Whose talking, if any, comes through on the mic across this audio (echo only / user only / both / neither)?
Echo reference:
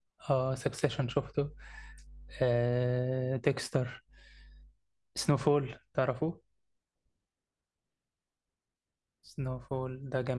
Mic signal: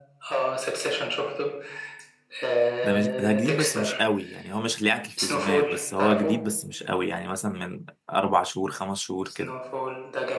both